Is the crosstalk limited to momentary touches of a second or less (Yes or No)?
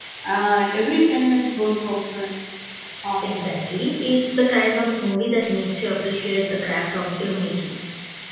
Yes